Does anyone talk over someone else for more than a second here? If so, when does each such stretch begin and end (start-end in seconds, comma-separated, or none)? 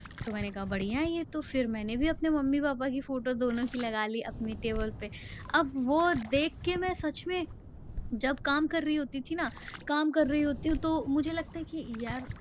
none